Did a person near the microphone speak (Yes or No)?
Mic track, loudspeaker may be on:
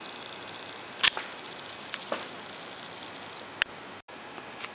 No